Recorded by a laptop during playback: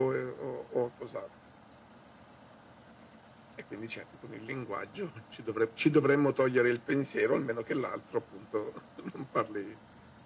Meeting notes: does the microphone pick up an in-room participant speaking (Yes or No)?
No